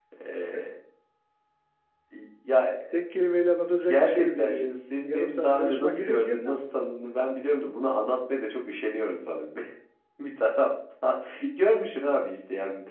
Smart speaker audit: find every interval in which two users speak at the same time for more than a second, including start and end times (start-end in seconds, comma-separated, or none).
3.8-6.4